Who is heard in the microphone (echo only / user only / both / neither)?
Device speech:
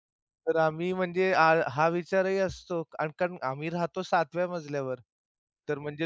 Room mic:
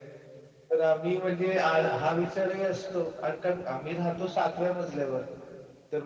echo only